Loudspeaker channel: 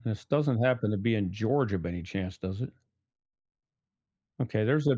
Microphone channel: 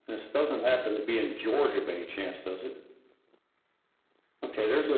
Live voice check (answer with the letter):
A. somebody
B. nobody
B